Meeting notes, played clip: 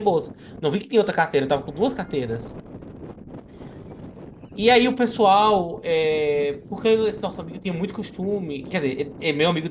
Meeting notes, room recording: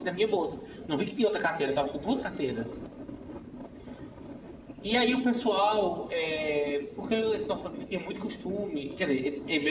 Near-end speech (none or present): none